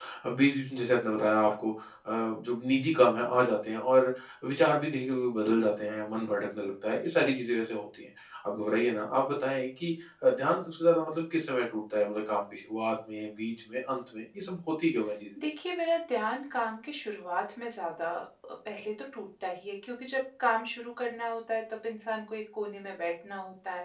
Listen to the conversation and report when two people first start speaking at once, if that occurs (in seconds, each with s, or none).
none